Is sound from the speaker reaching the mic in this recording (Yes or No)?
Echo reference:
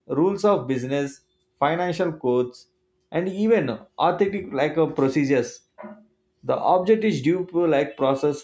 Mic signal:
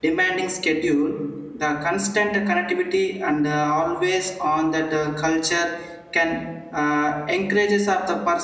No